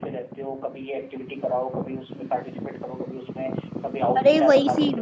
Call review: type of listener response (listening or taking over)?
taking over